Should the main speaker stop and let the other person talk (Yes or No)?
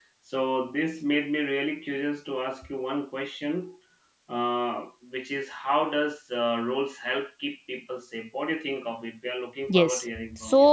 Yes